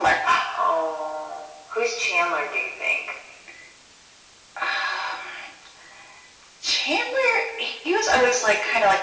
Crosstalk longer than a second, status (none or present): none